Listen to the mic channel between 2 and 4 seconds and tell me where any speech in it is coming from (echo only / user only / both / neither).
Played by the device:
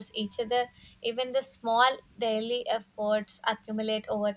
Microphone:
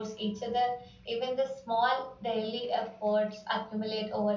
echo only